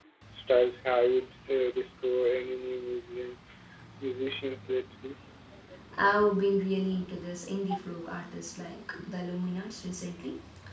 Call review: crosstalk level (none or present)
none